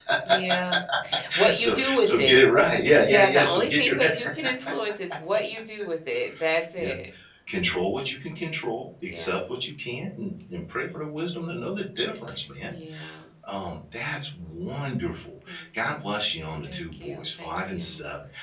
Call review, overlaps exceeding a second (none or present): present